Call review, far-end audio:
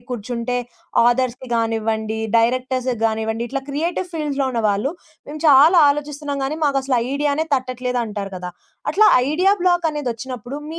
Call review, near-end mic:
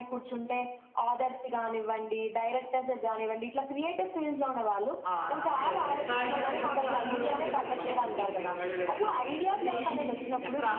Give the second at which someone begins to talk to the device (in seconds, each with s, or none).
5.1 s